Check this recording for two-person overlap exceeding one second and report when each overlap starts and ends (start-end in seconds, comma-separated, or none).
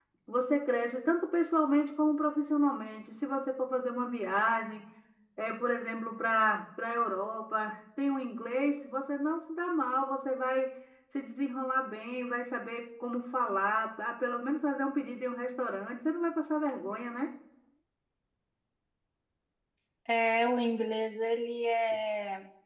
none